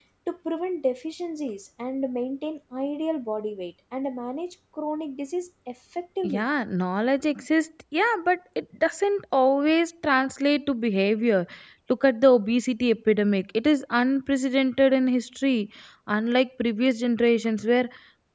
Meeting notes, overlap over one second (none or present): none